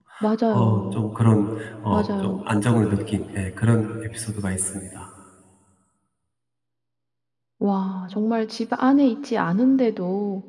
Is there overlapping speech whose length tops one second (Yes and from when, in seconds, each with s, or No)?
No